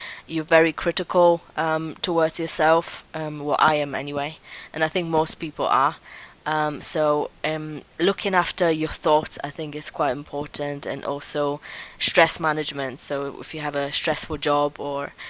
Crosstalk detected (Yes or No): No